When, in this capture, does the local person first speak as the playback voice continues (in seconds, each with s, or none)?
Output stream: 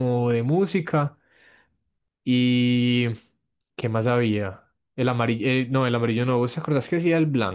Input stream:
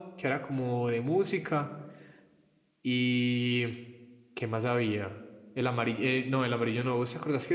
none